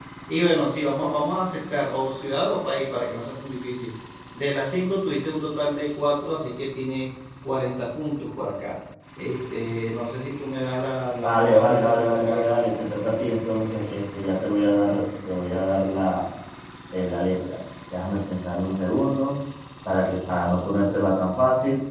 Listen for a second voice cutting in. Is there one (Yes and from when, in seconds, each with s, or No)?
Yes, from 11.2 s